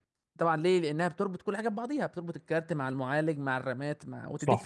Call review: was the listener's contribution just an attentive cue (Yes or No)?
No